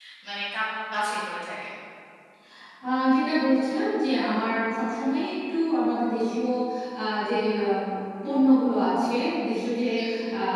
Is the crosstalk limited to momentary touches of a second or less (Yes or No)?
Yes